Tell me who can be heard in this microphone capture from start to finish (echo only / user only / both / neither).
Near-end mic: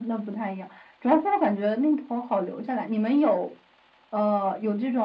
echo only